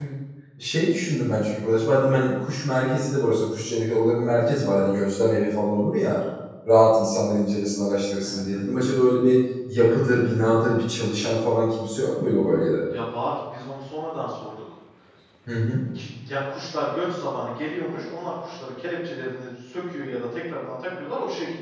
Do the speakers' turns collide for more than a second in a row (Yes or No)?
No